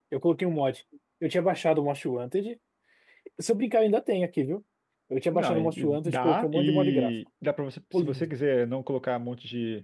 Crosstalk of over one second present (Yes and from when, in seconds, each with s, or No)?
Yes, from 5.3 s